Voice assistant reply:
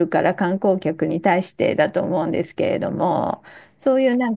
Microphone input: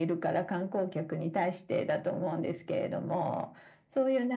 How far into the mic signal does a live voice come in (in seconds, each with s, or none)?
none